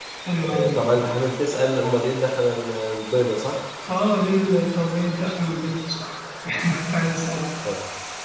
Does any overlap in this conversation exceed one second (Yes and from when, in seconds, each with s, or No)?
No